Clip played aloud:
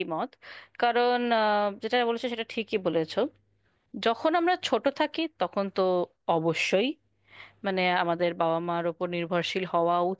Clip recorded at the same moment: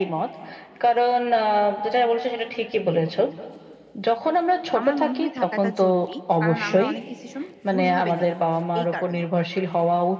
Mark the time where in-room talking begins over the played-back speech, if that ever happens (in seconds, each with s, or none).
4.8 s